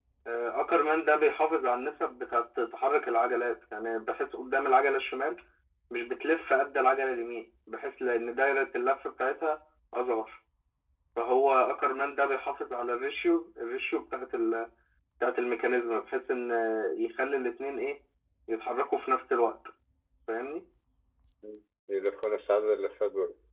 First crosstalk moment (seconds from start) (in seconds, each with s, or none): none